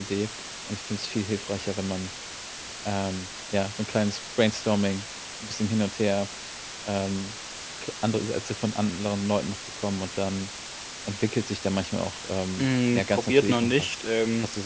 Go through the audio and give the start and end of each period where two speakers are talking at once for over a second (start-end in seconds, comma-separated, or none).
12.6-14.0